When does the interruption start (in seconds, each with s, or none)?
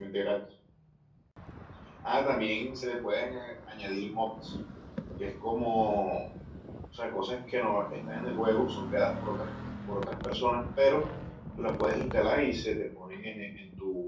none